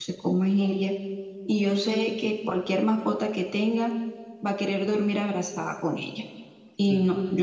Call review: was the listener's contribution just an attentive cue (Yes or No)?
Yes